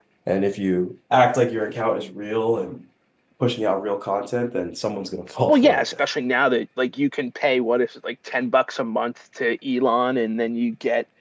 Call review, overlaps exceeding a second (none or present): none